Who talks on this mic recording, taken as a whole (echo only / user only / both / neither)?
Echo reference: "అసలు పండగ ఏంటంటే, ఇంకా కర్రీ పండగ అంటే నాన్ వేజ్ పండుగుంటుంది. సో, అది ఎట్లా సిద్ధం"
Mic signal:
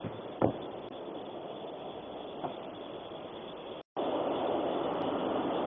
neither